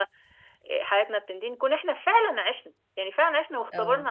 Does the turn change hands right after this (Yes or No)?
No